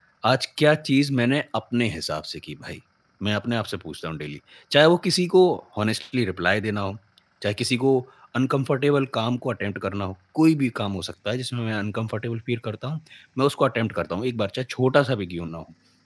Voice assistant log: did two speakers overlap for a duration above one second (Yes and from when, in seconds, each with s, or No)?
No